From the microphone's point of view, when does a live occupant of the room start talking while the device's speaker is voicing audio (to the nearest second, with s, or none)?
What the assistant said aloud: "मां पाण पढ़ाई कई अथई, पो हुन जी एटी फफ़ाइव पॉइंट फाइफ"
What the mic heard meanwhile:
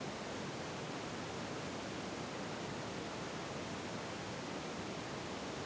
none